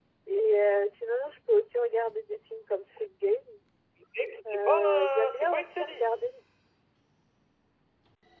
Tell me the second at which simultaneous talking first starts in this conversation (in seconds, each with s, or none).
4.5 s